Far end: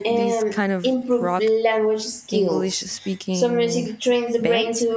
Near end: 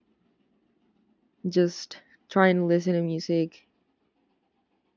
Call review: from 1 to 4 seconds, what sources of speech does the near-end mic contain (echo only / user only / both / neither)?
user only